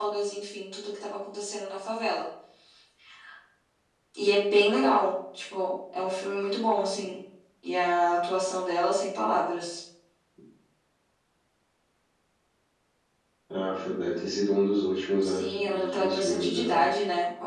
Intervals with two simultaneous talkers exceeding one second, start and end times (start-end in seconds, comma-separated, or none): 15.2-16.9